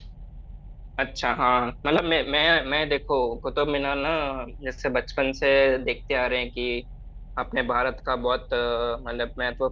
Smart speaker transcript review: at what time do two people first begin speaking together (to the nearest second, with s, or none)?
none